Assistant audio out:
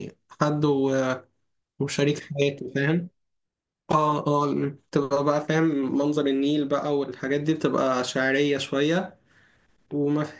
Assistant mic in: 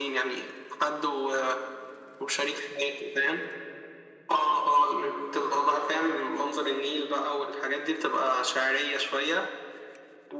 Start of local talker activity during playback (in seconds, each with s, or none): none